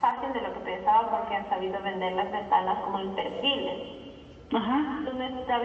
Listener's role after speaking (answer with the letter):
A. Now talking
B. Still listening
B